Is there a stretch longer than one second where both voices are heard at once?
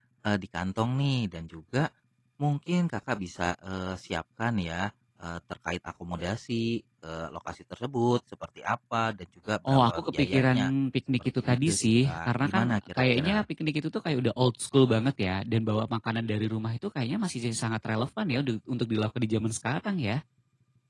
Yes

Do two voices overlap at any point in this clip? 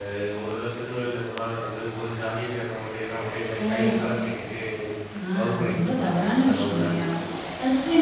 Yes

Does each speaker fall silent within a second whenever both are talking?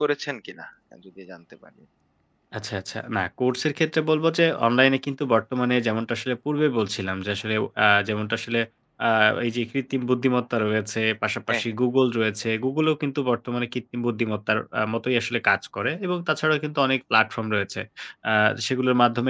Yes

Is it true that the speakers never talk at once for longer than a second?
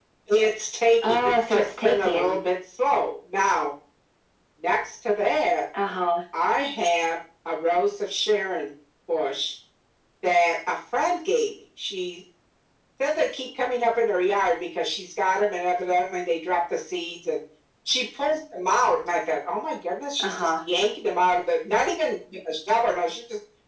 No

